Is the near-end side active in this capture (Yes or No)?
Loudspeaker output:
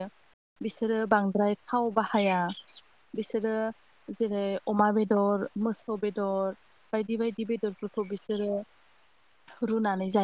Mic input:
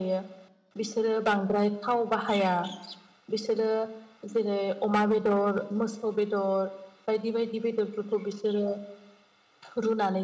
No